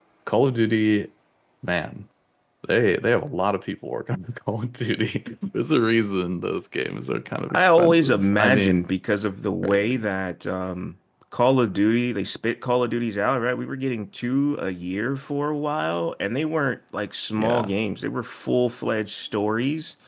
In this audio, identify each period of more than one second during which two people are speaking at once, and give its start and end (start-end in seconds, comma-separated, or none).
7.5-8.8